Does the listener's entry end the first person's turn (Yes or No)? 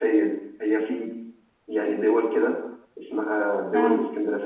No